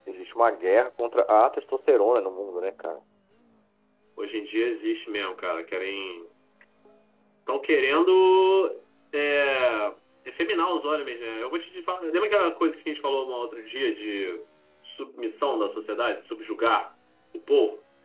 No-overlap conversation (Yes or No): Yes